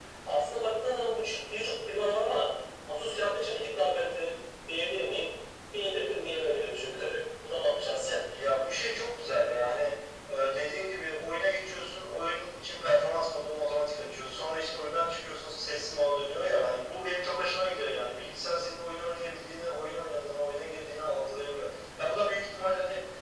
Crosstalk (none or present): none